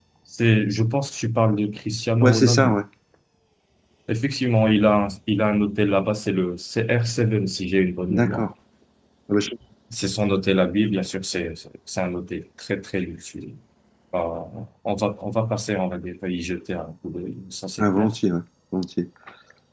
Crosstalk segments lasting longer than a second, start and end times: none

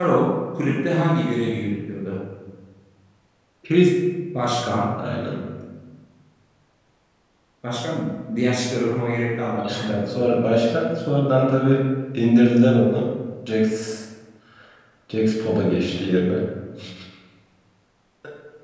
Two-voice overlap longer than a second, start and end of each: none

